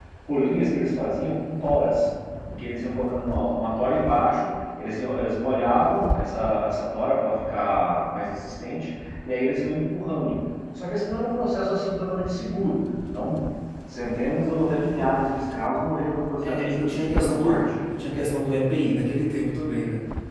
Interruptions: present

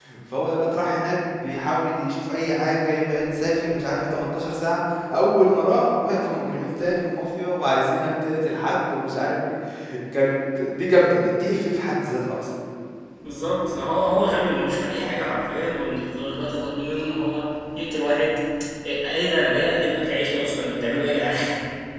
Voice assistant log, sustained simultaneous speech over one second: none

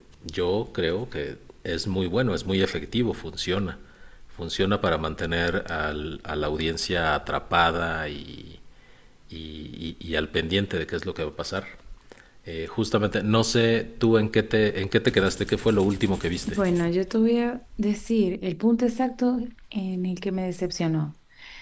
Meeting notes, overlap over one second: none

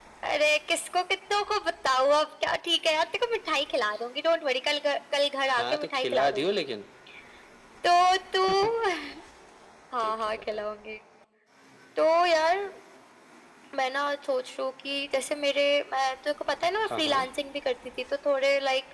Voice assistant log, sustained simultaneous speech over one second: present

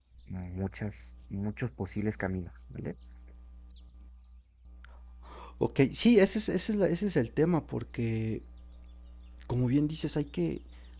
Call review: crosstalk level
none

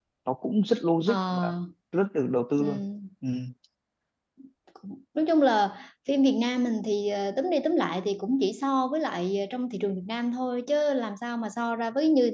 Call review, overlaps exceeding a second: none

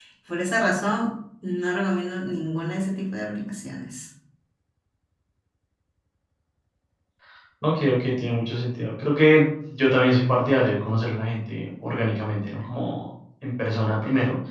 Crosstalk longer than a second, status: none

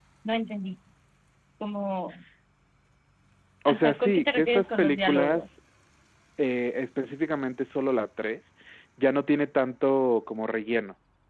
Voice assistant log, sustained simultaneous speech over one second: present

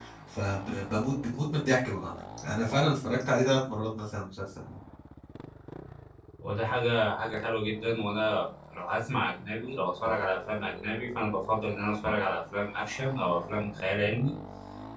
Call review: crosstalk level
none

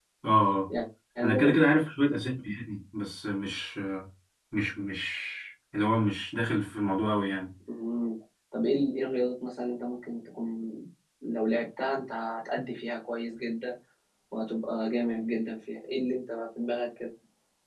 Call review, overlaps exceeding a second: none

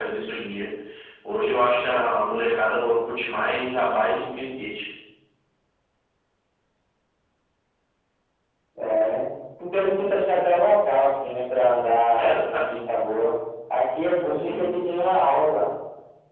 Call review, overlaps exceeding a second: none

